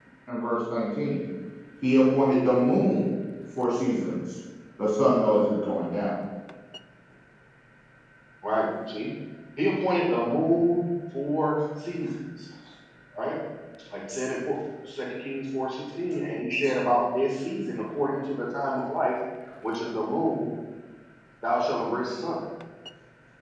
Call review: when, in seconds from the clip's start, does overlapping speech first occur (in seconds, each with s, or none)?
none